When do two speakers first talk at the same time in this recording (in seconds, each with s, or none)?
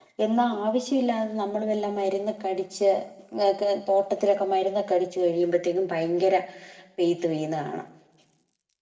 none